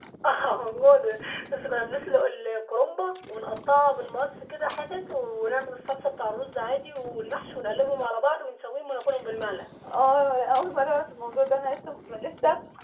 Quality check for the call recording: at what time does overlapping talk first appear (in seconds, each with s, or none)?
none